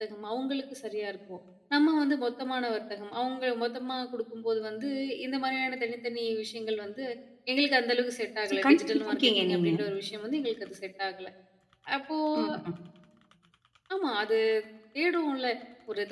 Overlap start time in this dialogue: 8.5 s

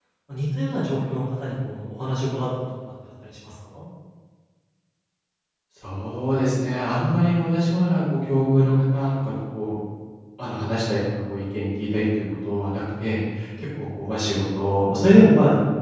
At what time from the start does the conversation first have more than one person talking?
none

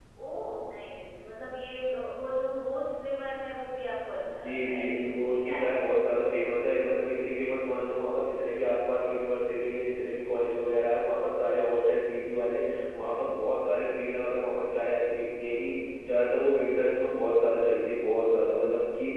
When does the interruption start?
4.2 s

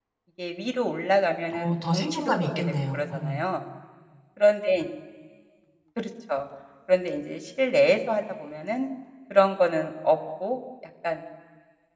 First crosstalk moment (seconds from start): 1.5 s

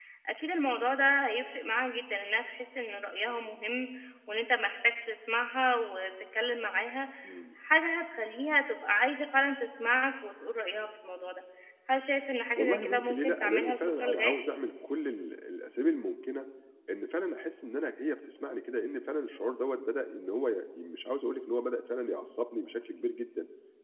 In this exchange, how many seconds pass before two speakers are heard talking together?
12.6 s

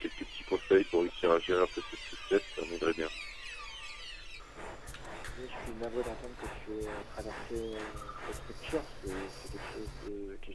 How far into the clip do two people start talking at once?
none

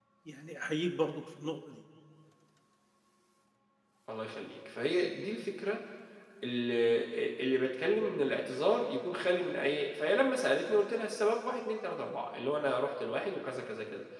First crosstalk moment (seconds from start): none

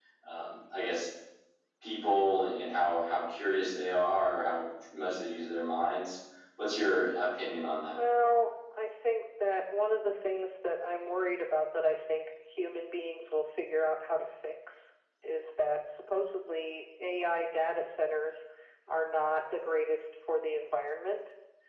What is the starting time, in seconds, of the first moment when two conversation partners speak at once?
none

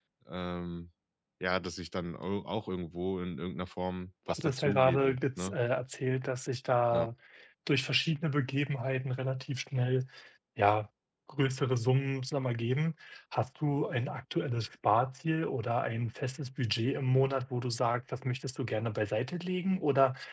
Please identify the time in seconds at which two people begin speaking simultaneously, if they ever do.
4.3 s

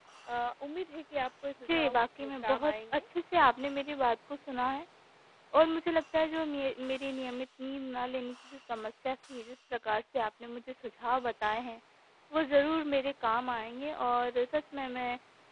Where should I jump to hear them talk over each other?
1.6 s

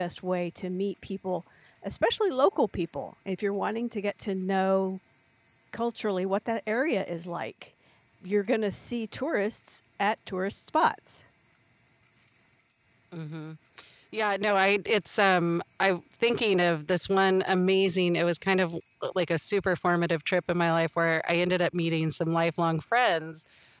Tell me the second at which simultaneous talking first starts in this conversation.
none

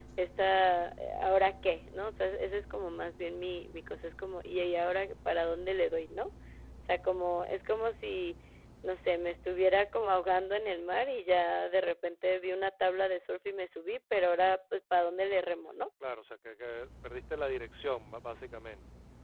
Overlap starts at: none

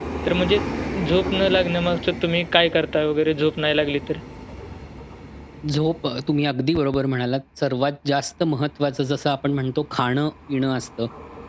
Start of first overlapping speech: none

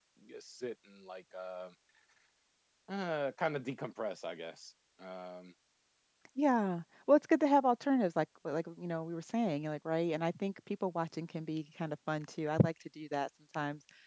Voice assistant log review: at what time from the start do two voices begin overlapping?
none

